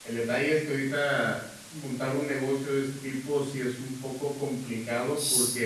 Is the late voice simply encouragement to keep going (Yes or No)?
Yes